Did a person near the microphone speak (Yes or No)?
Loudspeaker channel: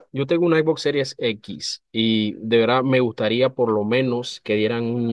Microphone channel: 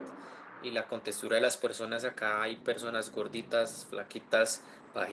Yes